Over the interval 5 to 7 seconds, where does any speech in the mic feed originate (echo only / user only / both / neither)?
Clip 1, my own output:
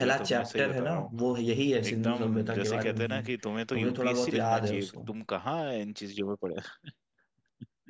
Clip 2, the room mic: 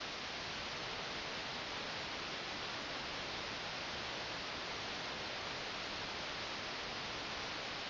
neither